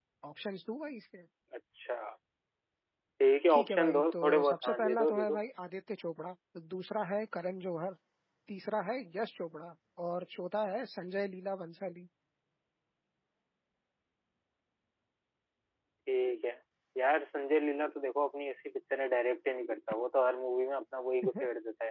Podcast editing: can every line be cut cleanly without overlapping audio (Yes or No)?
No